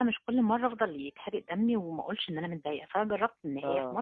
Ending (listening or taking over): listening